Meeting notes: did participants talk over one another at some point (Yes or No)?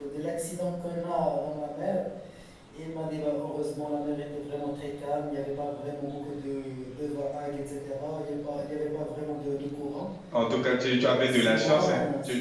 Yes